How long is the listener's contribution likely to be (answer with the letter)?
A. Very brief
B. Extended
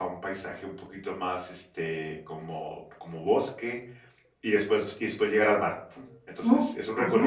A